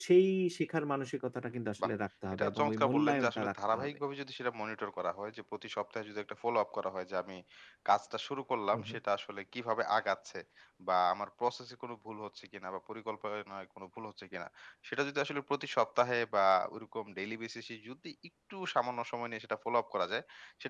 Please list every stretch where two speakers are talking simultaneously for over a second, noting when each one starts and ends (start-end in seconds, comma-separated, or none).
2.3-3.9